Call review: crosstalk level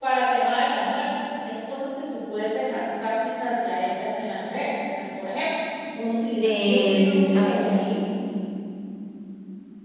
present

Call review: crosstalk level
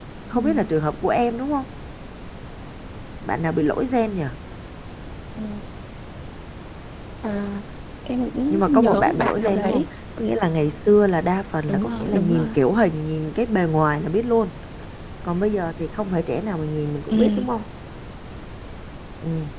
present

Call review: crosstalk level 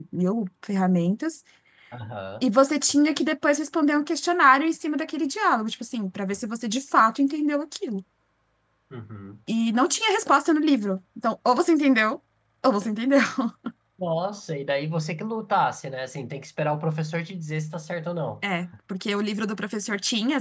none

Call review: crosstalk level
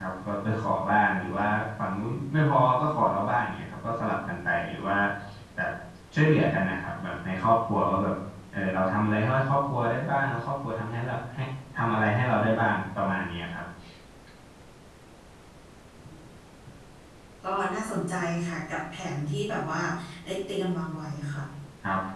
none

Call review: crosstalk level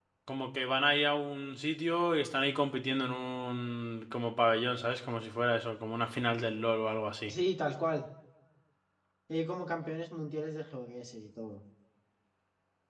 none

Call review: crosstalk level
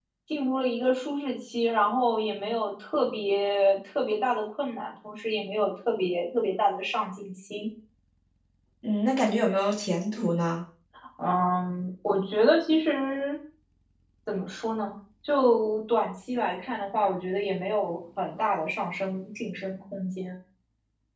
none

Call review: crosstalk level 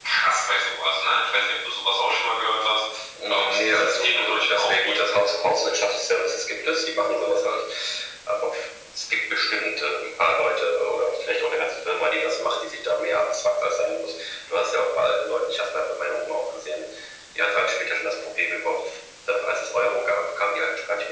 present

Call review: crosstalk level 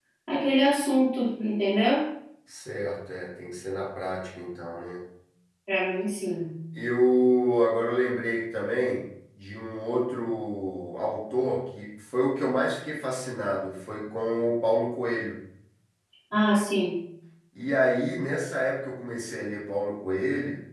none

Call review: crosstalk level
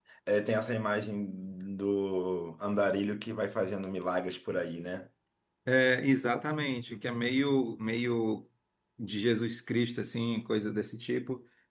none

